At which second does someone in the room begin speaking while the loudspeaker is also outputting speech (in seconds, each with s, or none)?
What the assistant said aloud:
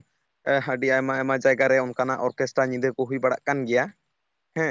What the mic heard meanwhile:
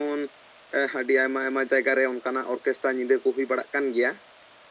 none